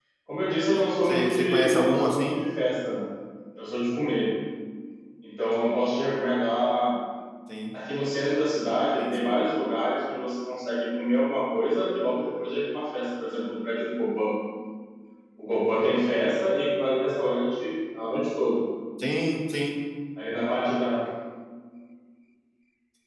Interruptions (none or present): present